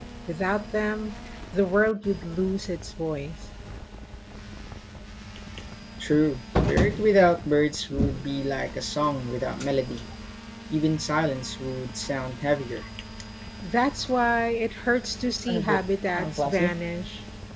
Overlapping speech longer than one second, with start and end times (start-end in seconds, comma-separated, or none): none